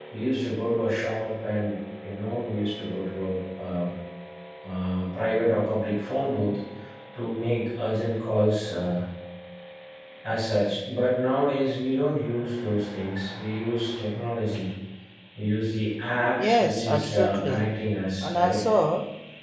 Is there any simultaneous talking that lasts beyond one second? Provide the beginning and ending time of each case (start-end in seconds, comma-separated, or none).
16.4-17.7